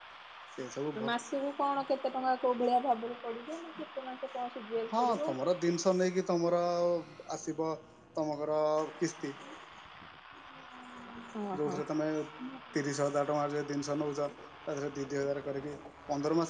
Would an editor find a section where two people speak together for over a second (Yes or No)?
No